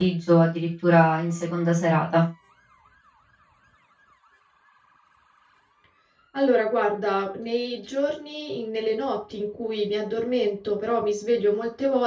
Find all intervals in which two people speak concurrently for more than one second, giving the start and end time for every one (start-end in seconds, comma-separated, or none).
none